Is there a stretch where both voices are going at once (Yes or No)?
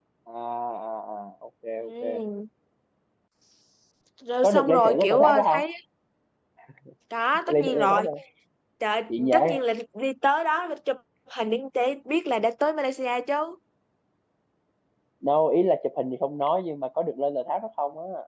Yes